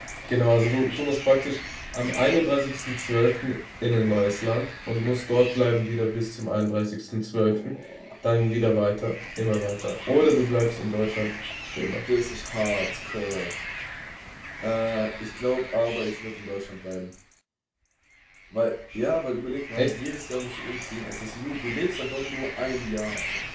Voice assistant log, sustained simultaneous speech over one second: none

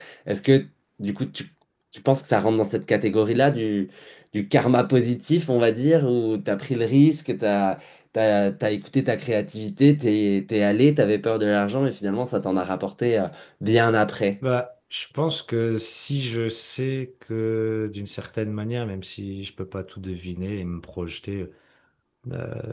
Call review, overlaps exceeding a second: none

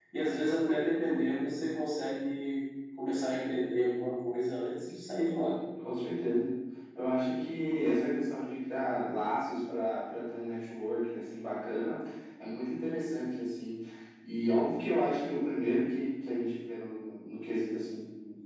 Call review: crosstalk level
none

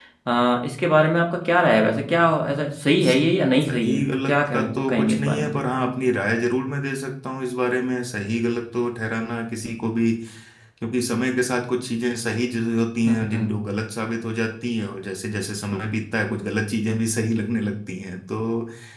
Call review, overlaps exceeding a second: present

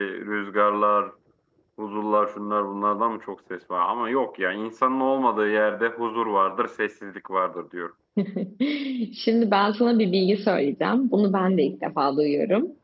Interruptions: none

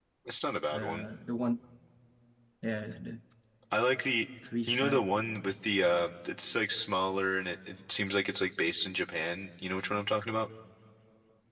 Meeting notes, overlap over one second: none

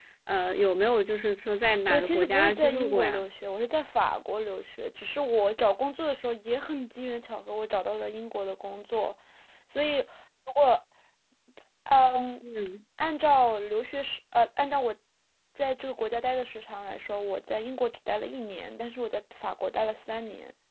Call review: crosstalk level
present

